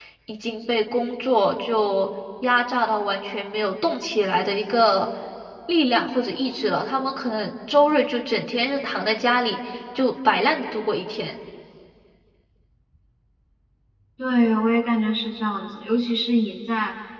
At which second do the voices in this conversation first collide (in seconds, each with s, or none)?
none